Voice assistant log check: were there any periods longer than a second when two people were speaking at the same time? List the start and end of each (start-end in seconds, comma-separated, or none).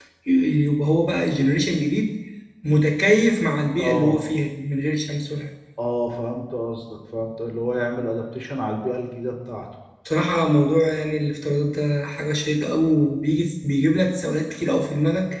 none